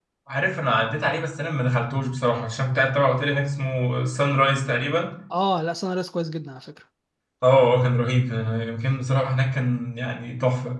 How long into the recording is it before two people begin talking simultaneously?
none

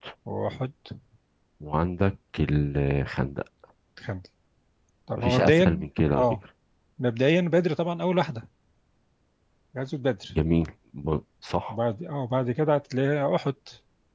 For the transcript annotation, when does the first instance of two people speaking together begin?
5.2 s

